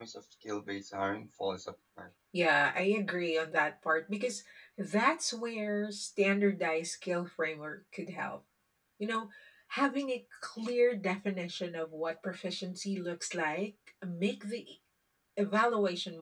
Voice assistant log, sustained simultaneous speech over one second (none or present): none